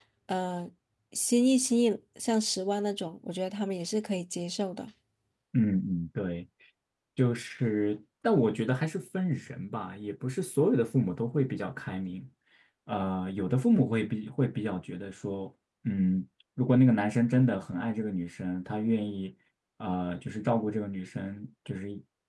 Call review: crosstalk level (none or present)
none